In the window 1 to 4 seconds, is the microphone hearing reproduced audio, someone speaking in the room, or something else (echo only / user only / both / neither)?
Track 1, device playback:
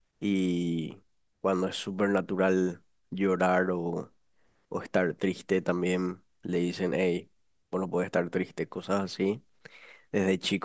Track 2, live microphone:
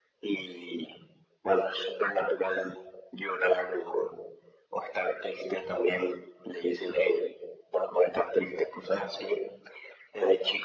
echo only